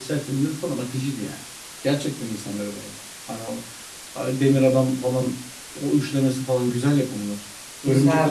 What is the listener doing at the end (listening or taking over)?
taking over